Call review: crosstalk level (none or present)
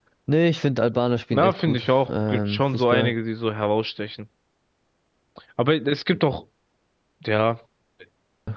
present